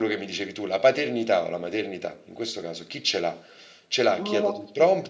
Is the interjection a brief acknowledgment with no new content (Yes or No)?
Yes